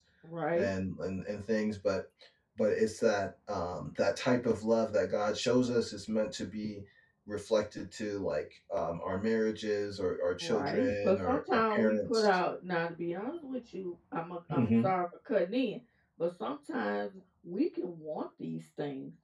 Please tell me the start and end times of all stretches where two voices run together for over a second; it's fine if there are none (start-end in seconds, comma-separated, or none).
10.4-12.4